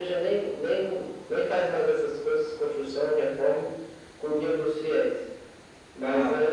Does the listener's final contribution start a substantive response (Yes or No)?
No